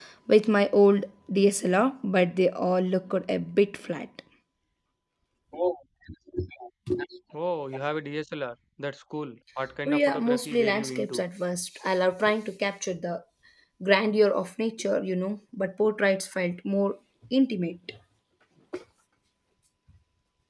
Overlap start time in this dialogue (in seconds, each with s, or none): 9.9 s